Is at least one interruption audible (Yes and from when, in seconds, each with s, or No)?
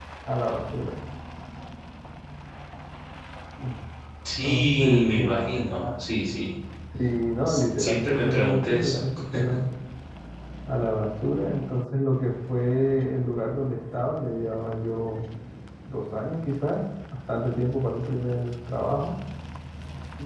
Yes, from 4.4 s